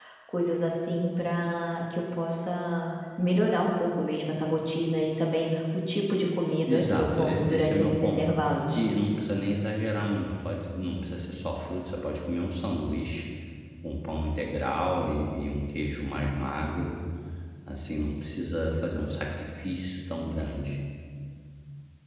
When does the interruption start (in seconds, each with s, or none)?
6.7 s